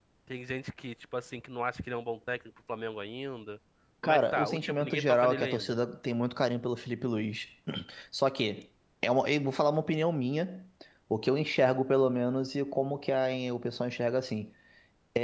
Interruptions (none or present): present